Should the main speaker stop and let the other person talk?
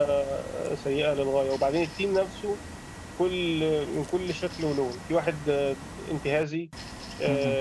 No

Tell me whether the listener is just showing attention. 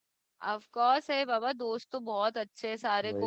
Yes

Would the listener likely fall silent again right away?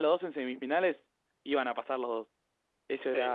No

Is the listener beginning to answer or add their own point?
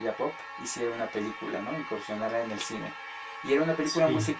No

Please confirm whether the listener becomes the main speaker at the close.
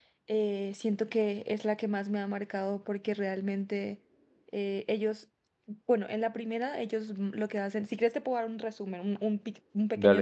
Yes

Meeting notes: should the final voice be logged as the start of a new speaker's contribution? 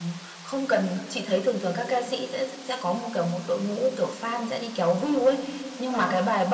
No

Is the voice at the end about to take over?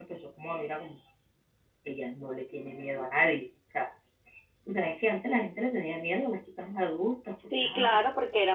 Yes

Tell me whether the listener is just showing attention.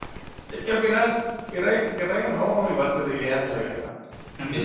No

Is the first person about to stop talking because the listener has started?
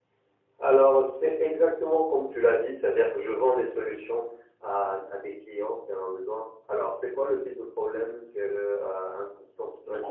Yes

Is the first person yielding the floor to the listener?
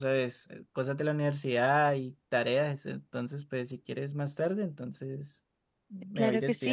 Yes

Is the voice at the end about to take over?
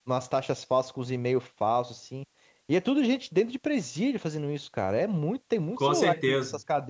Yes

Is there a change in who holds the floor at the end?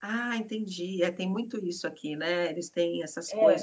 Yes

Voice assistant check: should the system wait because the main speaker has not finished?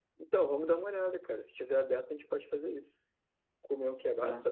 Yes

